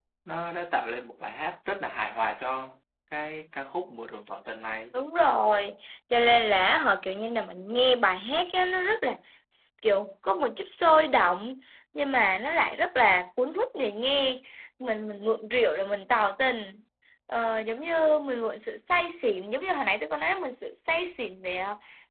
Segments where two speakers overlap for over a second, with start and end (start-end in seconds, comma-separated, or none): none